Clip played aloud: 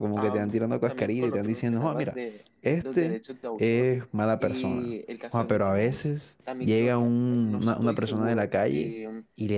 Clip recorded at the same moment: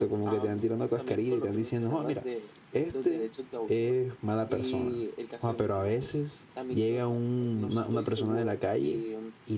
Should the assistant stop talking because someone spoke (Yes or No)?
No